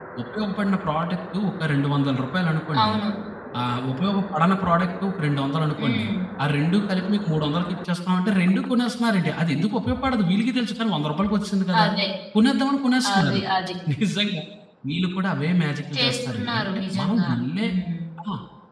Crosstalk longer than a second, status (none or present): present